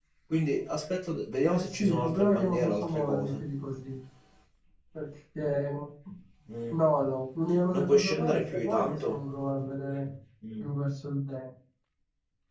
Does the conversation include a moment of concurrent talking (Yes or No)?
Yes